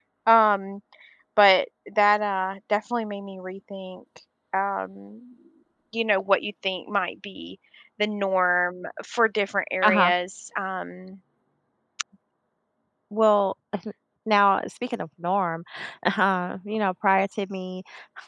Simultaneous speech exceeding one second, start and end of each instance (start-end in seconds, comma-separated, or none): none